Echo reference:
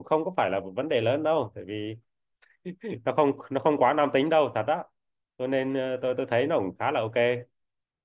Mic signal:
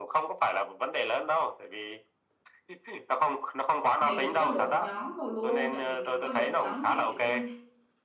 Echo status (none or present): present